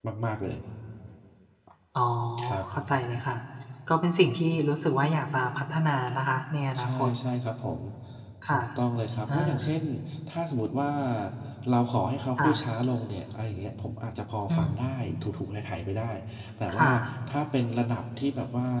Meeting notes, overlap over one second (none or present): none